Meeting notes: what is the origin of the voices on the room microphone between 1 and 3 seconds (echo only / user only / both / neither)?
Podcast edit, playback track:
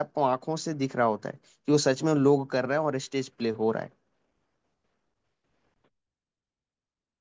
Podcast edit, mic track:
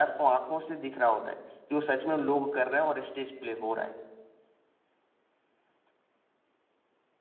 echo only